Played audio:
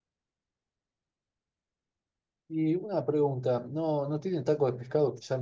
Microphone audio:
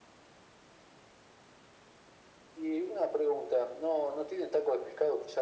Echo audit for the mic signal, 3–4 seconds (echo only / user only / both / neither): echo only